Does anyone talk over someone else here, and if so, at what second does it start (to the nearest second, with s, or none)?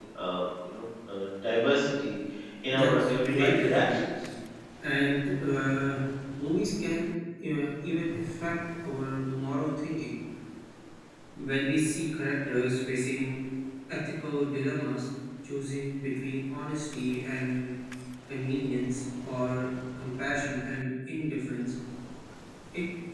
3 s